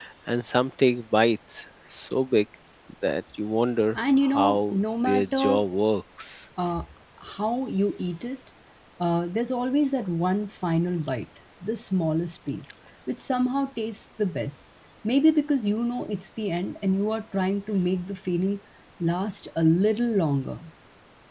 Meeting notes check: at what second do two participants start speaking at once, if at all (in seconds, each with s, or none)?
3.9 s